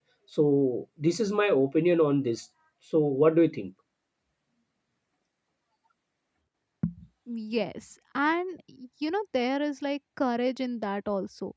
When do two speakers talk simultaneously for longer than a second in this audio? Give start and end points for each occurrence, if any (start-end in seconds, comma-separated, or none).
none